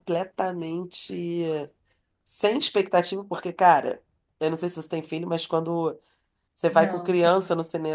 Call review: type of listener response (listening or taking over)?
listening